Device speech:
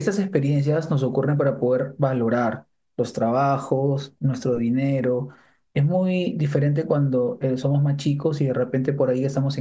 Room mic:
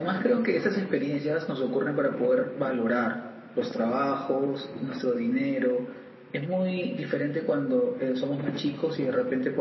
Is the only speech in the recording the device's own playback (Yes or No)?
Yes